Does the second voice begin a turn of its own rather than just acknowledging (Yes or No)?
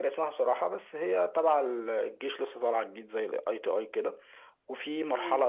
No